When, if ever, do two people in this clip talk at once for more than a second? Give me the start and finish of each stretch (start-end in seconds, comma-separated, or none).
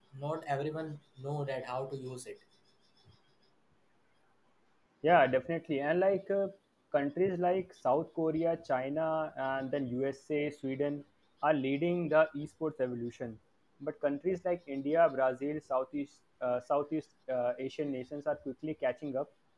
none